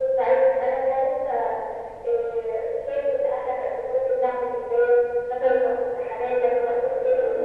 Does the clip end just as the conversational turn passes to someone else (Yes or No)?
Yes